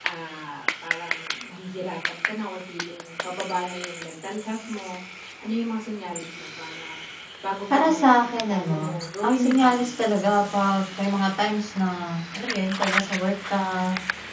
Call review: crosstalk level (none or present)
present